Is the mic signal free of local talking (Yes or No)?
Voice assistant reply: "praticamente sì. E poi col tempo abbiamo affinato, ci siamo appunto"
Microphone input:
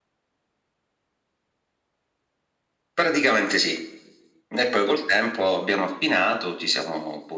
Yes